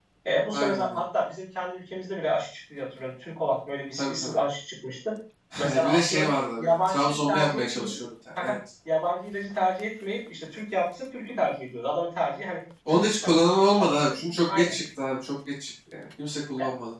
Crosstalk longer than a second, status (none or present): present